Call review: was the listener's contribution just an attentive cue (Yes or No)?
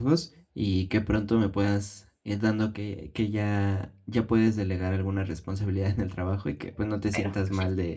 Yes